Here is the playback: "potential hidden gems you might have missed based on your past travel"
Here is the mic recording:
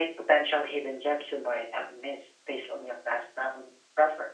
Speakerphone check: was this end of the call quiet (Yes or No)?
Yes